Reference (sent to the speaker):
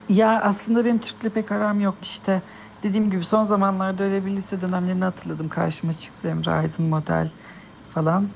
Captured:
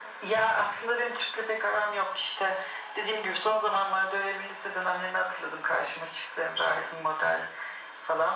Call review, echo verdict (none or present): present